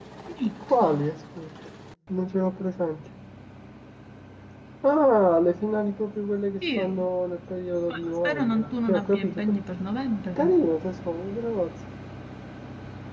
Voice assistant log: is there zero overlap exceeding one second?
No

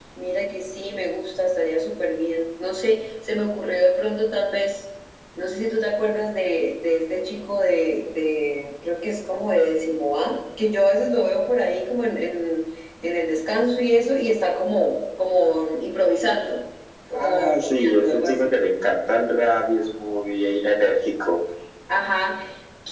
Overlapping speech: Yes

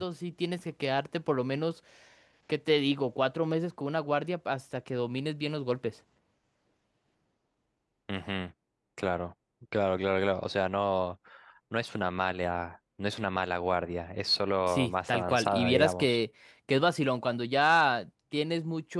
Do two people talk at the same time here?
Yes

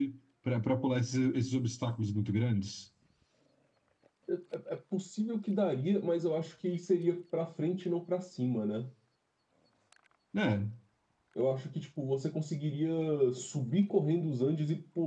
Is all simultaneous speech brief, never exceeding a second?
Yes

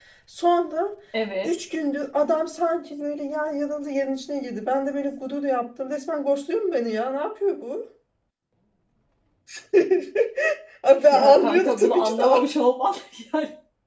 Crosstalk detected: Yes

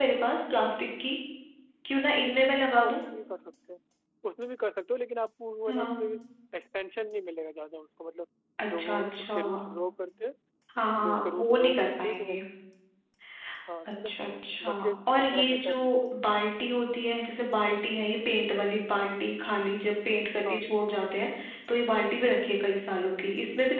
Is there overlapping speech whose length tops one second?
Yes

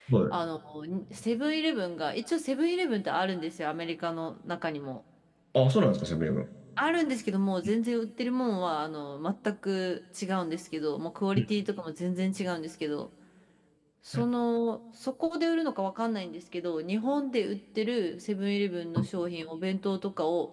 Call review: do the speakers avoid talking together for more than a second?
Yes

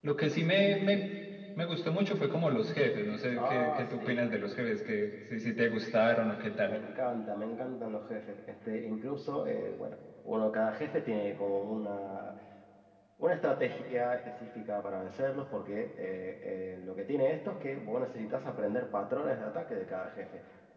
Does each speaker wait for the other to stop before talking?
No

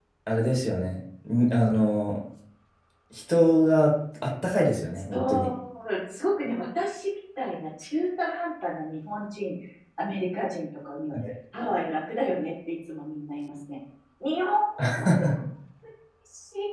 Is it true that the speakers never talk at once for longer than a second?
Yes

